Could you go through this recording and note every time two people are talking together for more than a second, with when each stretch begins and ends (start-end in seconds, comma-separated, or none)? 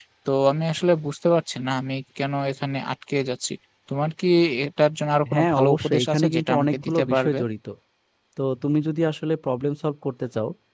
5.3-7.4